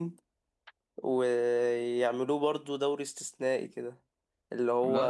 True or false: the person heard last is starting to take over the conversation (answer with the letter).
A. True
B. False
B